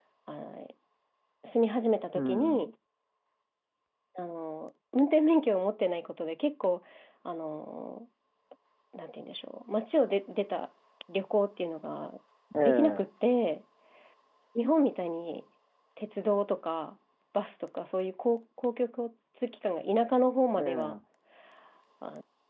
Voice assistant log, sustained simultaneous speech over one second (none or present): none